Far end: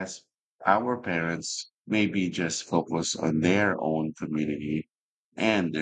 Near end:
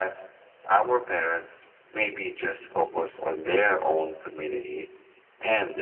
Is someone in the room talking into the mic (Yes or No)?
No